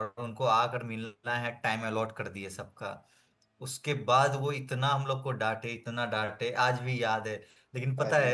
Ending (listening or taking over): listening